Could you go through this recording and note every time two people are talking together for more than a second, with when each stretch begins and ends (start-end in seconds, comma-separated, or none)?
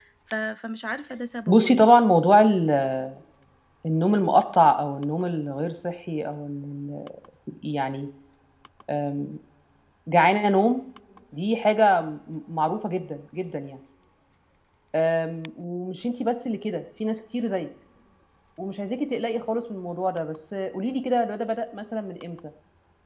none